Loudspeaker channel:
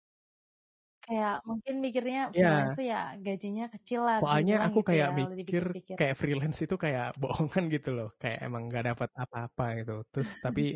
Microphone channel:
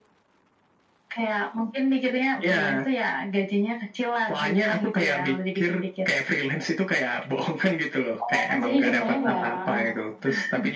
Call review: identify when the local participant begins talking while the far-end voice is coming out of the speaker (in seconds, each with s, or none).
8.2 s